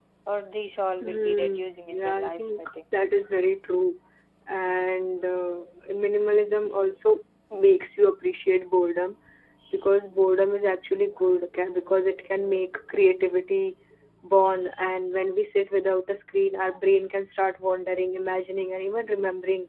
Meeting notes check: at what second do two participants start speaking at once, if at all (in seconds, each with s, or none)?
1.0 s